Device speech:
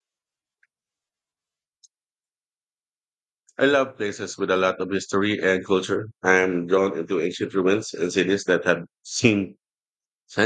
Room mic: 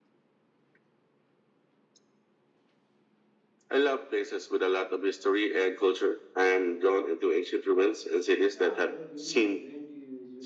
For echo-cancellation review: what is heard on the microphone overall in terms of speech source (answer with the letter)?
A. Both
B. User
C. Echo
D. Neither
A